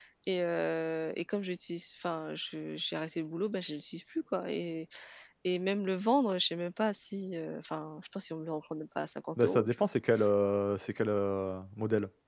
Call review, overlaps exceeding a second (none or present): none